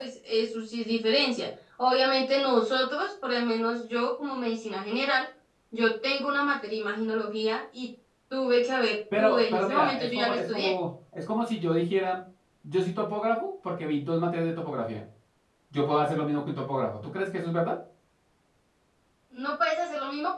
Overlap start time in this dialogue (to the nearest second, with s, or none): 9 s